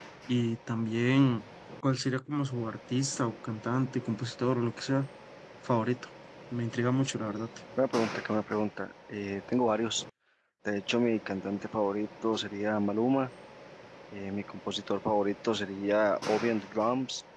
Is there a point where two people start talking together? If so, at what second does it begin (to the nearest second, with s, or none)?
none